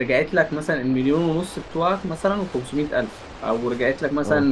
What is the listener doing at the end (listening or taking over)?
listening